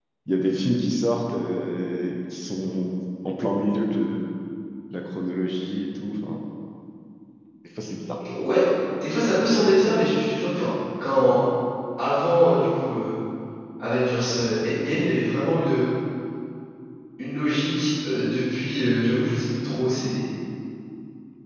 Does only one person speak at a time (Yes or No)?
Yes